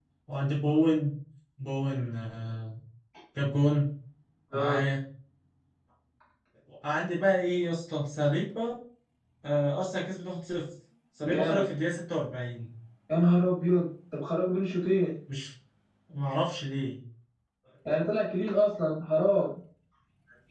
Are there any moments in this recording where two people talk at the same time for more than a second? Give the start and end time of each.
none

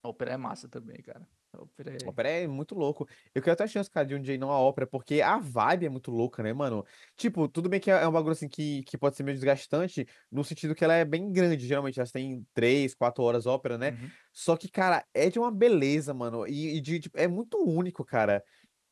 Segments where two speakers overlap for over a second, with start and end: none

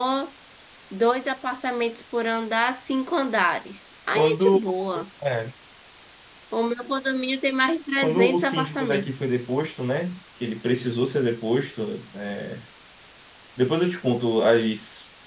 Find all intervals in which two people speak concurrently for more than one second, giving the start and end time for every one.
8.0-9.2

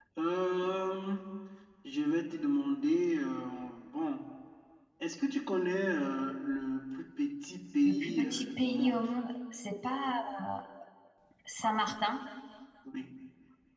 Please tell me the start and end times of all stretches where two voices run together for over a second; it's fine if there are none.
7.8-9.1

